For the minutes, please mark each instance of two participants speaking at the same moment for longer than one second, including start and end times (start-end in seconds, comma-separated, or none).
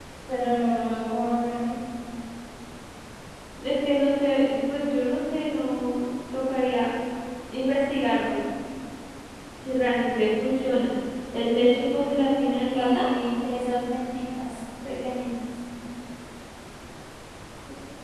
none